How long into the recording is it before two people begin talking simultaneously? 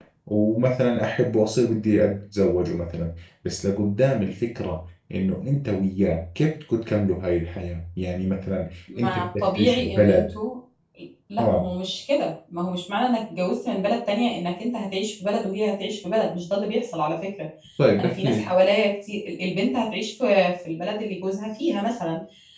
9.0 s

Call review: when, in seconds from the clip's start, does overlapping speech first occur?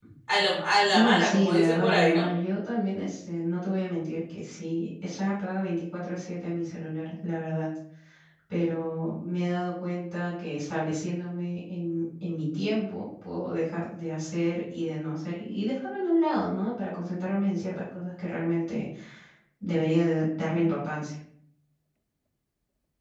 0.9 s

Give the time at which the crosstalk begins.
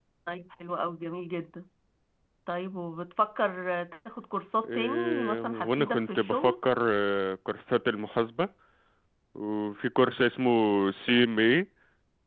4.6 s

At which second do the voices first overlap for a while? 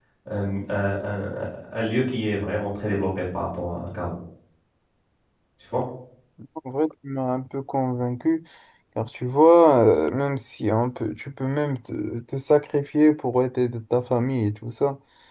none

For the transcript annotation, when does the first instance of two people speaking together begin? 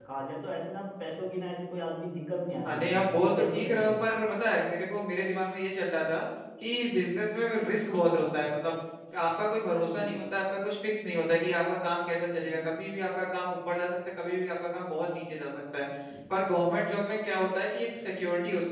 2.6 s

